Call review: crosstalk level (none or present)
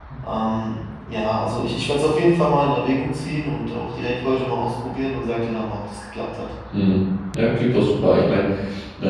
none